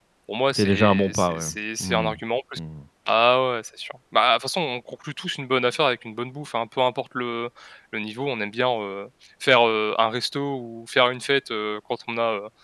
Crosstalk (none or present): present